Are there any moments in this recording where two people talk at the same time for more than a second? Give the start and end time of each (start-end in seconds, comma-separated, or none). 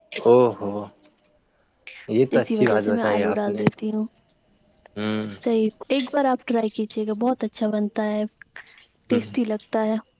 2.4-3.6